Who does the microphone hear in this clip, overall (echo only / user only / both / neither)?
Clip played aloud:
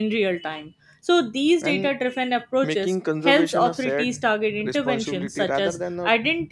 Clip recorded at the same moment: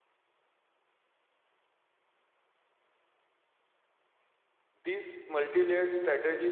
user only